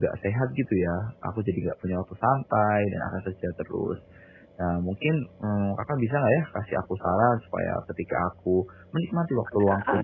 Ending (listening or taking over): listening